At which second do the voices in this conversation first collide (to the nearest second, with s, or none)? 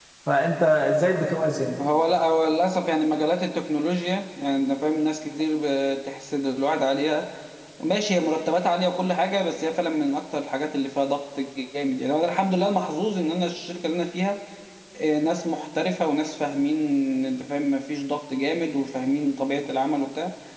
none